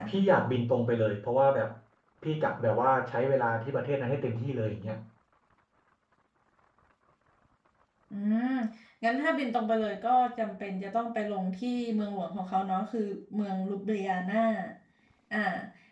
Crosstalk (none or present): none